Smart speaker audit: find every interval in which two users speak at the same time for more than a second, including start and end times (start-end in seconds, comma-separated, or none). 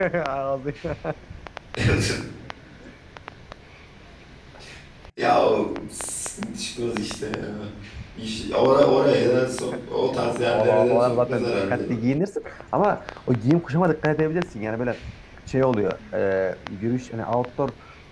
10.1-11.8